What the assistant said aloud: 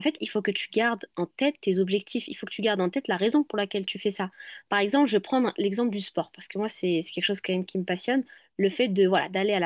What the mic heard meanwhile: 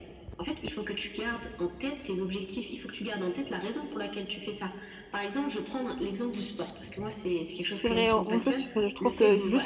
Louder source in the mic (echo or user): user